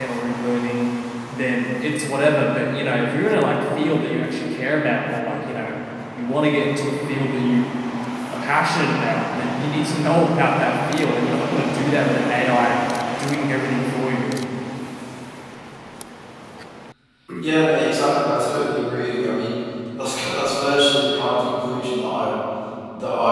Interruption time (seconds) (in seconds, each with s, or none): none